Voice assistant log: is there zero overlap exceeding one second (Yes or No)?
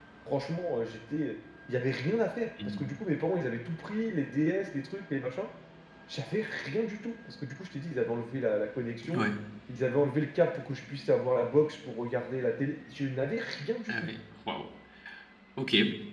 Yes